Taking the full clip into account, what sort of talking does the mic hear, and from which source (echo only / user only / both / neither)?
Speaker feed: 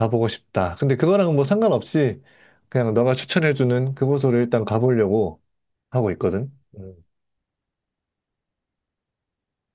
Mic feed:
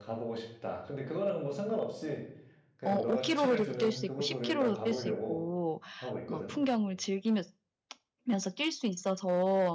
both